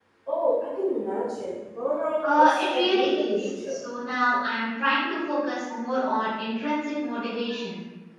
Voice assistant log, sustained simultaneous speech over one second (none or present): present